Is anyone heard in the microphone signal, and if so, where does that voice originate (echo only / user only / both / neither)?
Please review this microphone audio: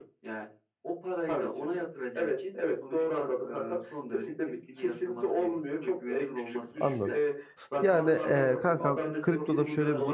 both